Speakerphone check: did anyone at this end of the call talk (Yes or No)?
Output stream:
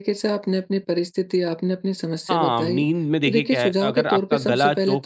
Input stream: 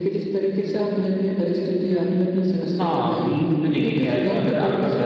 No